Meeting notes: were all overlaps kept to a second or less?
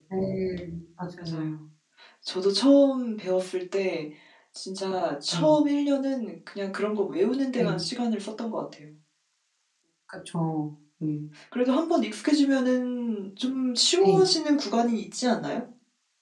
Yes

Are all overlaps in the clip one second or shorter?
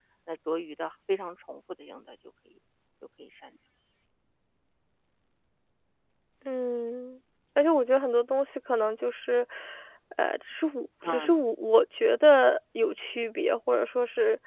Yes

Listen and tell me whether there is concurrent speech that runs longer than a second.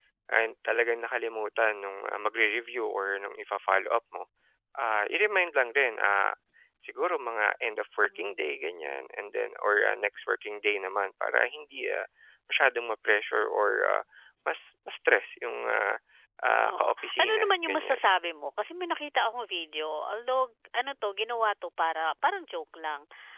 Yes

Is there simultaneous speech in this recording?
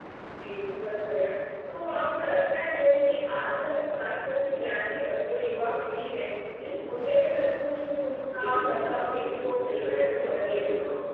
Yes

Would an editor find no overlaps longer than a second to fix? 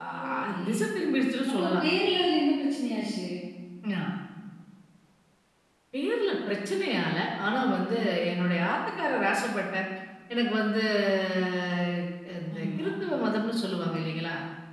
Yes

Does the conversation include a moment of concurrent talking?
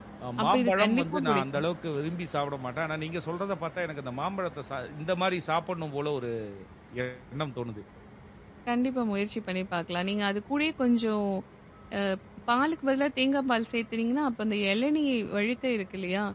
Yes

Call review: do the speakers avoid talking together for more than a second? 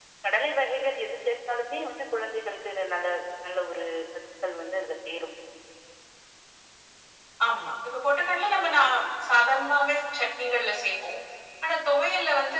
Yes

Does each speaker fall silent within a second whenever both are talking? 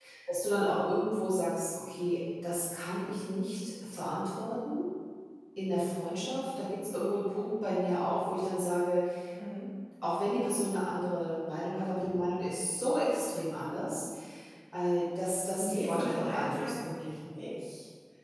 No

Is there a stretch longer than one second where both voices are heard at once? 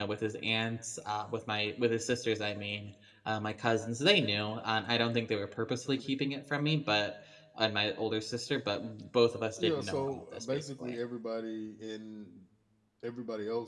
Yes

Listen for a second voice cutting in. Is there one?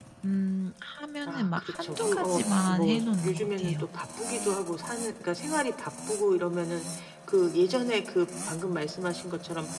Yes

